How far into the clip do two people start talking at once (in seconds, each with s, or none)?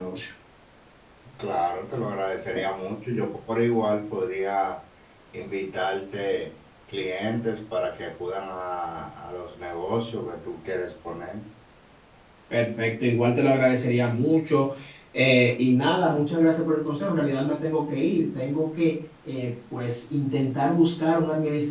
none